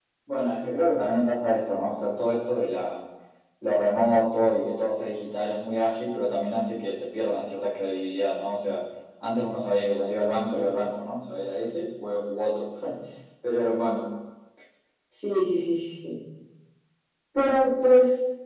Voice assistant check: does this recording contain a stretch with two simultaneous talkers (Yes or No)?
No